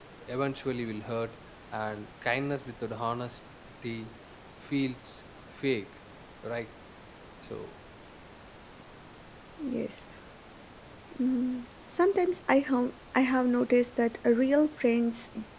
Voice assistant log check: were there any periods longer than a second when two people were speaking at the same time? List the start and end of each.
none

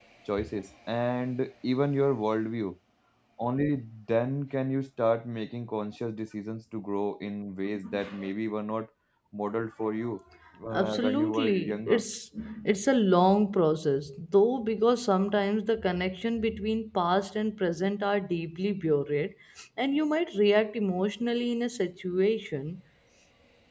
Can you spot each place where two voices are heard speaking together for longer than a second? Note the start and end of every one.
10.7-12.0

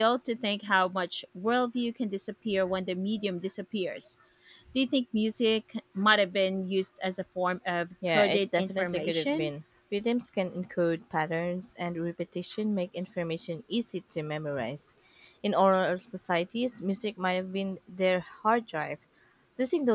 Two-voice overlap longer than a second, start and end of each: 8.1-9.5

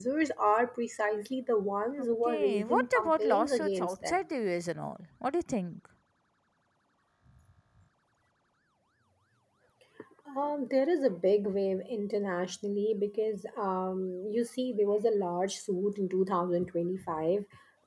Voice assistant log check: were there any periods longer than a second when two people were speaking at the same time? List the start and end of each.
1.9-4.2

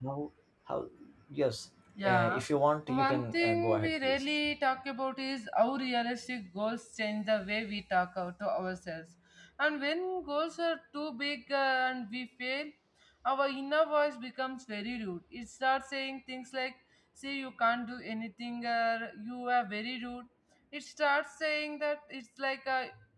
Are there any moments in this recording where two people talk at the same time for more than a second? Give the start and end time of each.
2.9-4.2

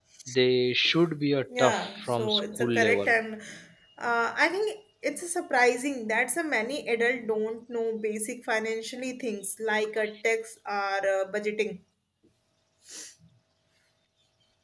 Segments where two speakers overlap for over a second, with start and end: 1.6-3.1

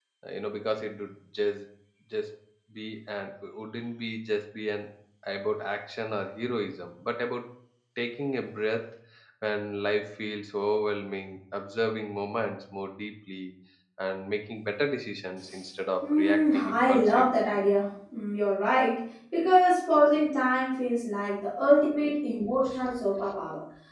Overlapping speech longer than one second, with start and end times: 16.0-17.3

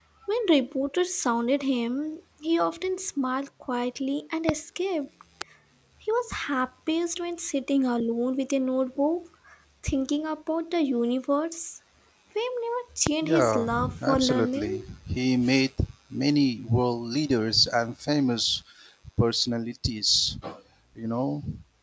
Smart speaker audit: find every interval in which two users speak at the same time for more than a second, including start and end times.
13.2-14.8

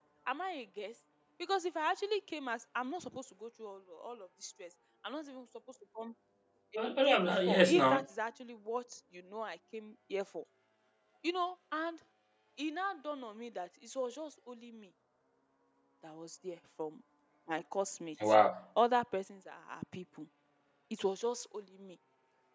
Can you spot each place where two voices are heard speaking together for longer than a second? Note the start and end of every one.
6.8-8.0

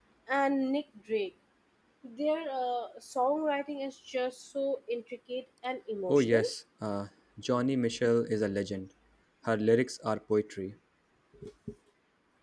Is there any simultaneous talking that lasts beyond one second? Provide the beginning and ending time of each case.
none

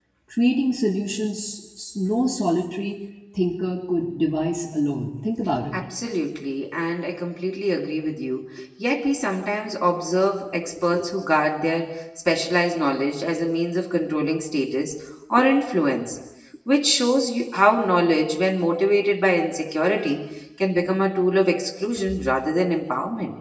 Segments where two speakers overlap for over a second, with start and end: none

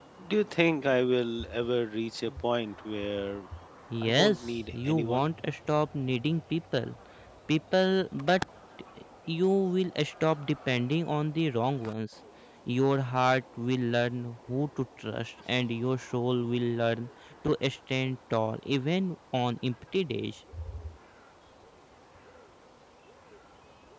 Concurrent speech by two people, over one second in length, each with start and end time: 4.0-5.3

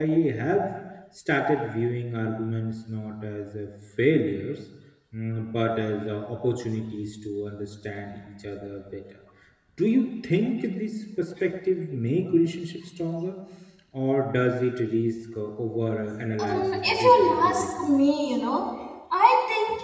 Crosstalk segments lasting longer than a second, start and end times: 16.4-18.1

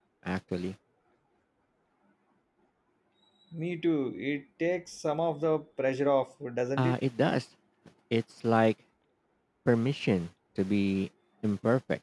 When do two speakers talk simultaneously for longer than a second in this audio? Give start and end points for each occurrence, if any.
none

